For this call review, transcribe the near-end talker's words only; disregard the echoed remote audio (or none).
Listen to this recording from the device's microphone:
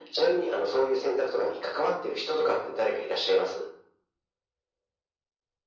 none